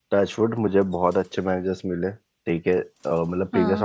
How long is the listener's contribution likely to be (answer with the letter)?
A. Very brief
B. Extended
A